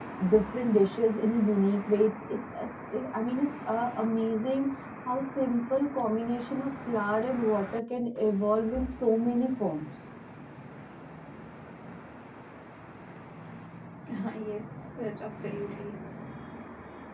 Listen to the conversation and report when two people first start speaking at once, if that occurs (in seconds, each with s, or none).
none